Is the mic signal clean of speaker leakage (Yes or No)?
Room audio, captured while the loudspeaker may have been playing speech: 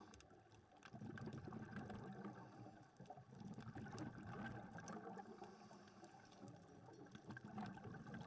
Yes